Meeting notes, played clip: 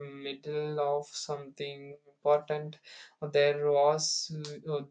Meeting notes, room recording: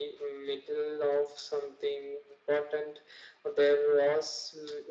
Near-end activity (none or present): none